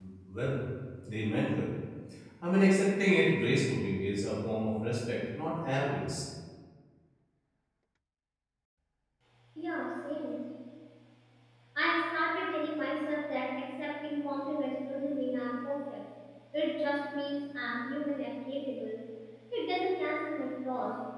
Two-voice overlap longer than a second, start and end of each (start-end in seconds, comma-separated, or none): none